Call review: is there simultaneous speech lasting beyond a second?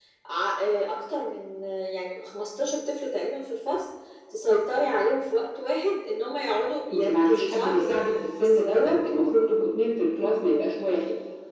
Yes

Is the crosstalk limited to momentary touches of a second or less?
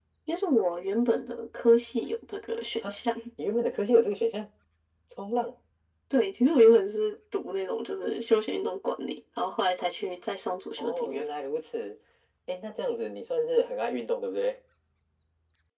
Yes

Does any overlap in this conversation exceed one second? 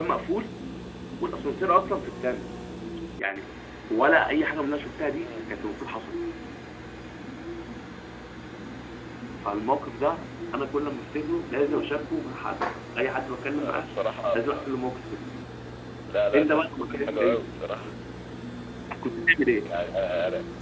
Yes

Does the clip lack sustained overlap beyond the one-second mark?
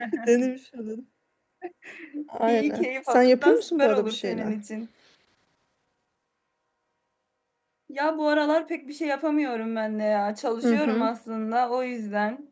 No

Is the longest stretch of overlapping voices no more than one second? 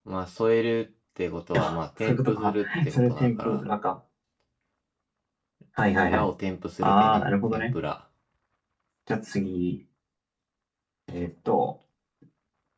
No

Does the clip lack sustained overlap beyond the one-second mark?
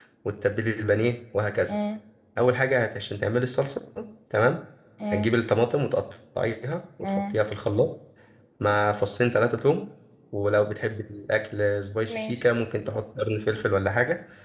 Yes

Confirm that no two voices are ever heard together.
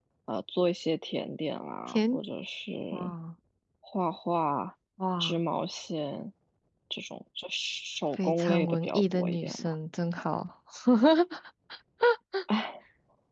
No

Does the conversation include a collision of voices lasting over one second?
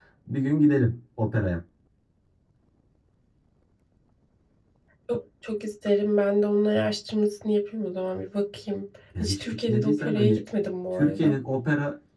Yes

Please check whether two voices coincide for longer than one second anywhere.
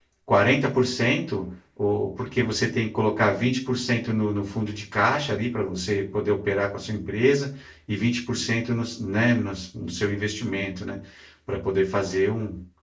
No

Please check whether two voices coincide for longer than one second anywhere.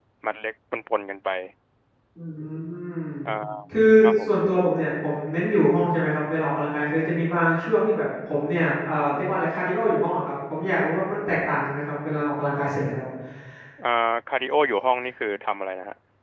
No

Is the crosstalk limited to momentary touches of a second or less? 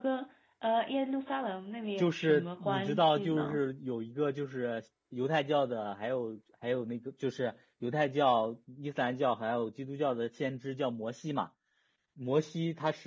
No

